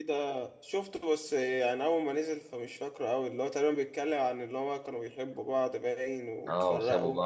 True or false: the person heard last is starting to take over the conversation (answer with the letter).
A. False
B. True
B